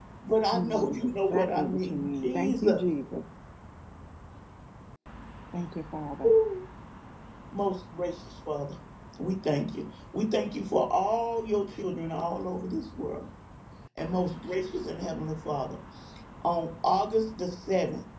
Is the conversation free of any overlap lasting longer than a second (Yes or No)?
No